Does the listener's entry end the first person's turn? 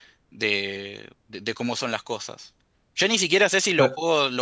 No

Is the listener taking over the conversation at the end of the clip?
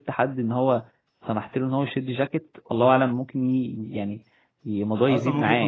Yes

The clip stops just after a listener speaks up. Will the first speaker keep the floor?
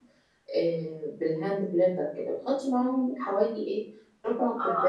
No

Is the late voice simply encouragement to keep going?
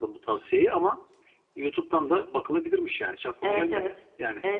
No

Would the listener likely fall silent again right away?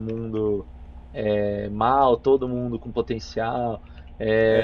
No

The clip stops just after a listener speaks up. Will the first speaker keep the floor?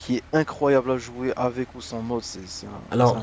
No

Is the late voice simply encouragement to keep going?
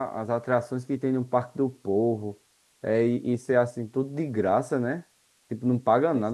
Yes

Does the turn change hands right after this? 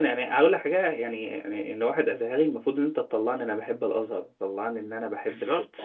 No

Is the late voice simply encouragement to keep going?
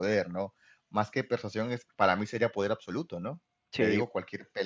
Yes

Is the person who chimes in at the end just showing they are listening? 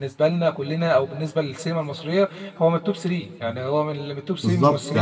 No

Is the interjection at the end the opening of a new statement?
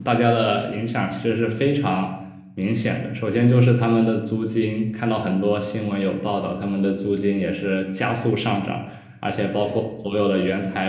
No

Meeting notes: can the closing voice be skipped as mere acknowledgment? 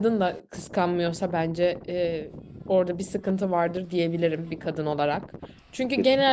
Yes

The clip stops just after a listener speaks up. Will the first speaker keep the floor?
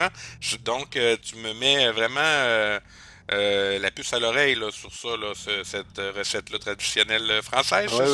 No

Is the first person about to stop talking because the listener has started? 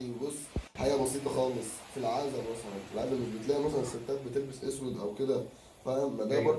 No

